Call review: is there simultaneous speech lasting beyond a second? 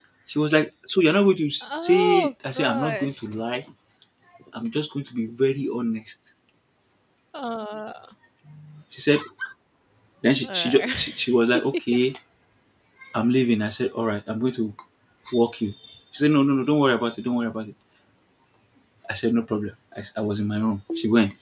Yes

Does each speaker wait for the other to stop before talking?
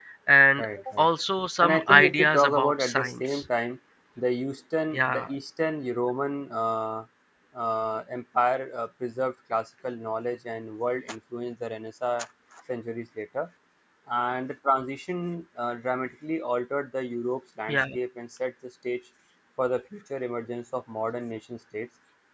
No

